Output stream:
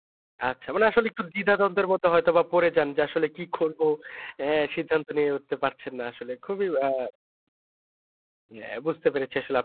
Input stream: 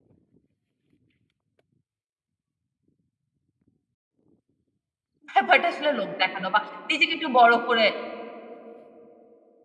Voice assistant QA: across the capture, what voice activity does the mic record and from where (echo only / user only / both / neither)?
user only